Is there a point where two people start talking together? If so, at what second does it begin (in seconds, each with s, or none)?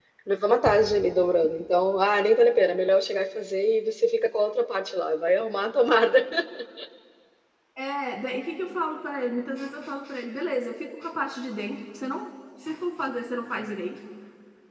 none